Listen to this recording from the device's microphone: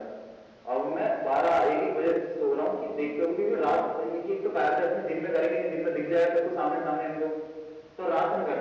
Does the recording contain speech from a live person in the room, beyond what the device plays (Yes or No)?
No